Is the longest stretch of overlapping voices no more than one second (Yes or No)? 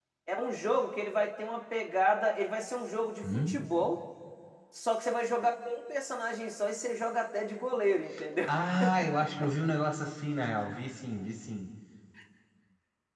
Yes